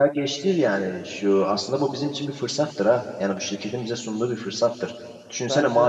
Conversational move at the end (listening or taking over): listening